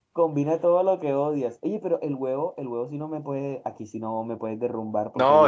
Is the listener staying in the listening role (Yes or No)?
No